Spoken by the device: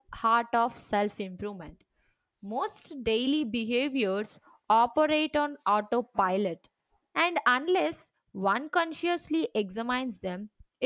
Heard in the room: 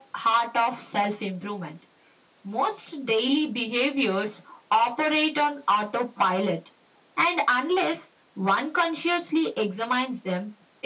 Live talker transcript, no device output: none

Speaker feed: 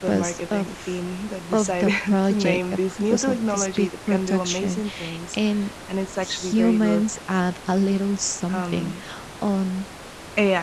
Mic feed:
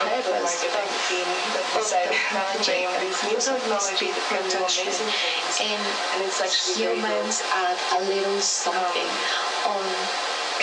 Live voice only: none

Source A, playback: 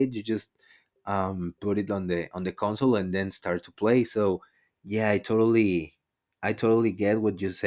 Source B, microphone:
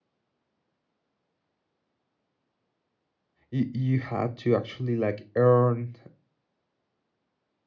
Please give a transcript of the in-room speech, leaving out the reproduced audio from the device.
you, you had to actually like earn

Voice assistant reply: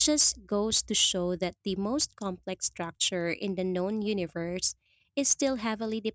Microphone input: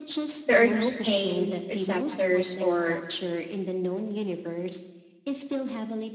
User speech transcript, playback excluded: there are no pain receptors or

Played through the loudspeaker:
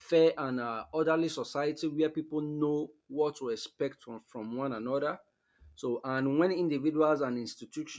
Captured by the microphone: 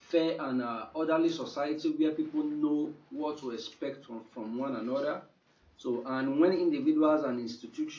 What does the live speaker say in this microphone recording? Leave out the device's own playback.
none

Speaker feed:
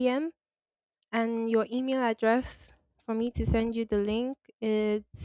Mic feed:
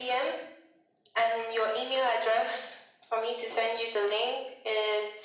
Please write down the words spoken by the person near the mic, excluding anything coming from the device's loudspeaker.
none

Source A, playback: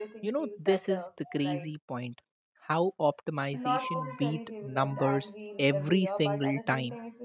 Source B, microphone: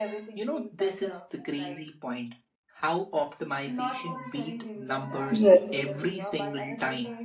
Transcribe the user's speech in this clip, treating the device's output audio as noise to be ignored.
Yes,

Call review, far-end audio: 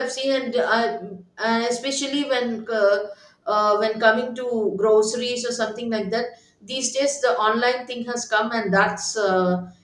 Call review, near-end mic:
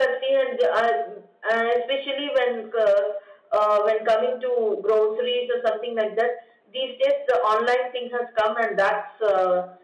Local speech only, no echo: none

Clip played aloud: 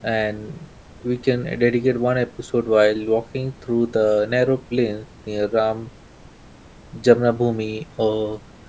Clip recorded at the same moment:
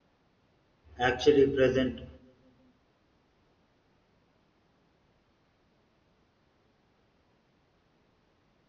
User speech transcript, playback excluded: actually present

